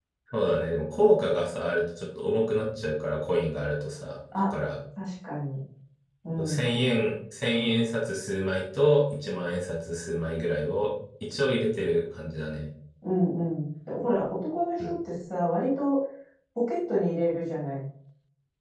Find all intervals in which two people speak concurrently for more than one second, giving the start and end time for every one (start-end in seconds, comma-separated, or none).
none